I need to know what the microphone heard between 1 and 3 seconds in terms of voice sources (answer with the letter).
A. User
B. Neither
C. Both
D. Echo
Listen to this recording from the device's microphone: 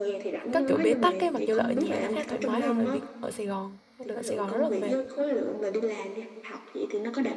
C